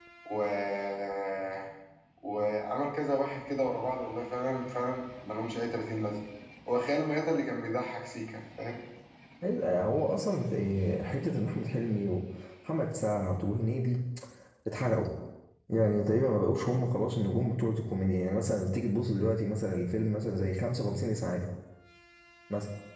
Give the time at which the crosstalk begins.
none

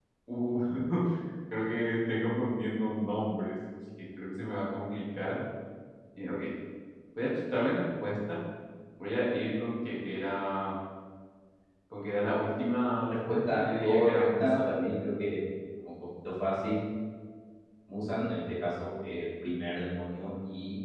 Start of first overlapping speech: 13.3 s

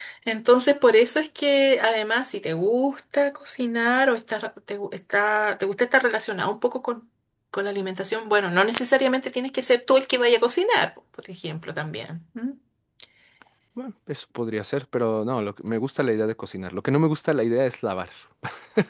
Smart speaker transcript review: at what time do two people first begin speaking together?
none

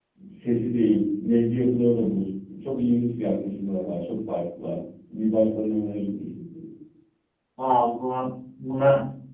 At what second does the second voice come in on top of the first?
none

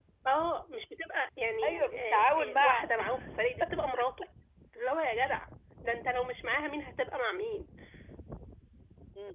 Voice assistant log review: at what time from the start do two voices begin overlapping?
1.6 s

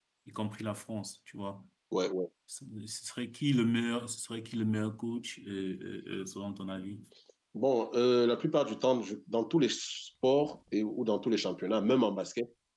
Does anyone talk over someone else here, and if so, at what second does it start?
none

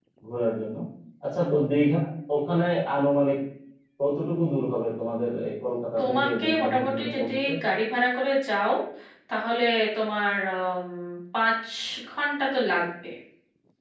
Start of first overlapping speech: 6.0 s

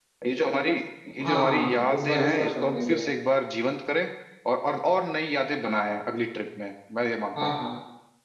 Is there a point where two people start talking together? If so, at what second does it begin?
1.2 s

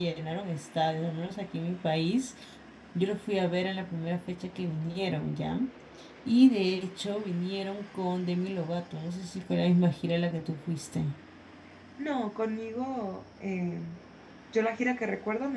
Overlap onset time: none

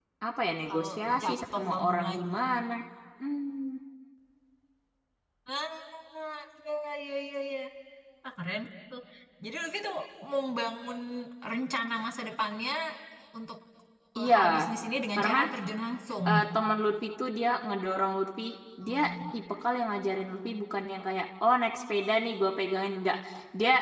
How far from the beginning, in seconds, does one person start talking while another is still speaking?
0.7 s

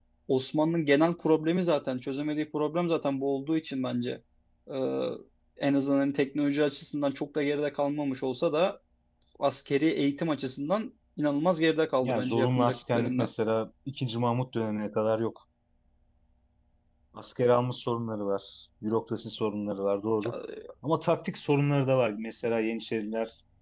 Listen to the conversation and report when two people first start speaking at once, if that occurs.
12.0 s

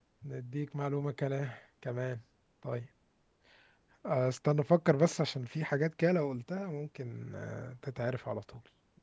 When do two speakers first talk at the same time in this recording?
none

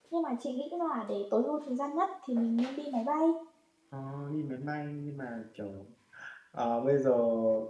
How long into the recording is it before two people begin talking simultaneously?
none

